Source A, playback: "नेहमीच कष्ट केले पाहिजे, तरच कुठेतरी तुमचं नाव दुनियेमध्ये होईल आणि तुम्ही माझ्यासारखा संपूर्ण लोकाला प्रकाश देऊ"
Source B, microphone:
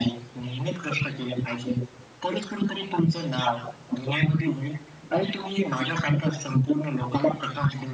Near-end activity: none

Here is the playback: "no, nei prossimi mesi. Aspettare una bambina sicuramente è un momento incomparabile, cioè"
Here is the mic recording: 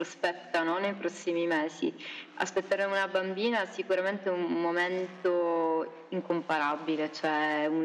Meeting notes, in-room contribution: none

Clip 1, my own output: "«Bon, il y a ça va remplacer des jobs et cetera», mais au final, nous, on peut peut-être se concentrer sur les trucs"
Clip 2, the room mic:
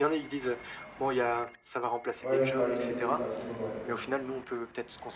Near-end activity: present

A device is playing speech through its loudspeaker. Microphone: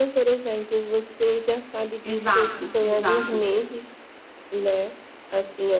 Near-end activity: present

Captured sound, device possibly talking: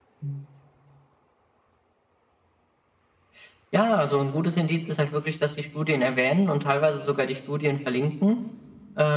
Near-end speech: none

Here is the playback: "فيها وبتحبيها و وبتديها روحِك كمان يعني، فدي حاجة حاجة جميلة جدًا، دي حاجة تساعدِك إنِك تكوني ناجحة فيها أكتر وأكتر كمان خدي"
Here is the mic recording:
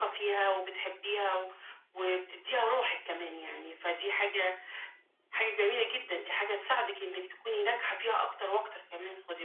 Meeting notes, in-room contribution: none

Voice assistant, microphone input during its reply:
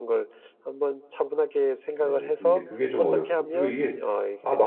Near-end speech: present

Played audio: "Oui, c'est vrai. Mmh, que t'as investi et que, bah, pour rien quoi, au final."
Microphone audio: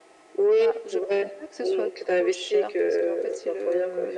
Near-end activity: present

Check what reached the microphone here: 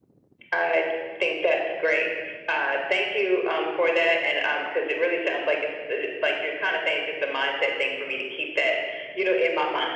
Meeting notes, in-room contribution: none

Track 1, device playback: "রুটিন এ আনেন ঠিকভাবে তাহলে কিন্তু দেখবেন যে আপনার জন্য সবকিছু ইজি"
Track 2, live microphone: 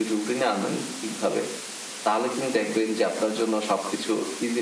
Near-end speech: none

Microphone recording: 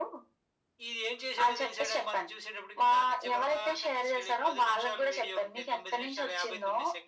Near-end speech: none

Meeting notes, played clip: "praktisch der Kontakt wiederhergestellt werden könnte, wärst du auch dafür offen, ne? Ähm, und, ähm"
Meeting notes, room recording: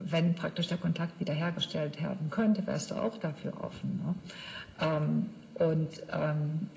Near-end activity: none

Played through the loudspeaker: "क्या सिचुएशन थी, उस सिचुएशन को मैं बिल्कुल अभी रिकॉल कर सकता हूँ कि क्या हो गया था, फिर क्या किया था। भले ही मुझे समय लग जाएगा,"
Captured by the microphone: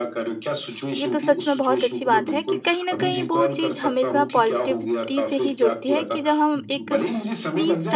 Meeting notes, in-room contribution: present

